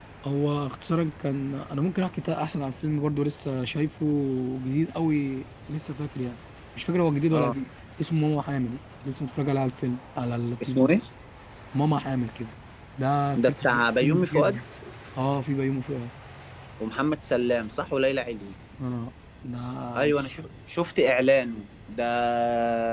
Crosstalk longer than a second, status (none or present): none